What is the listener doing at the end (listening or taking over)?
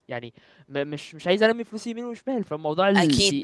taking over